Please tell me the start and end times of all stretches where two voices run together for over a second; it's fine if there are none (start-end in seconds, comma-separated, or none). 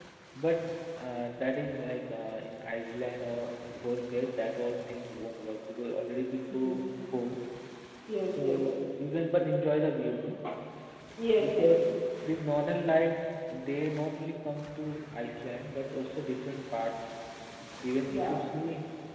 none